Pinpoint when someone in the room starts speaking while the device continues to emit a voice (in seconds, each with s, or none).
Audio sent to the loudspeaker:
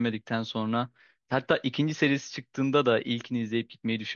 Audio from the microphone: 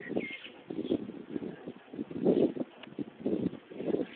none